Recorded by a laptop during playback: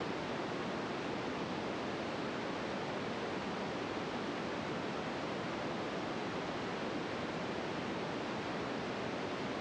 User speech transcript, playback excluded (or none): none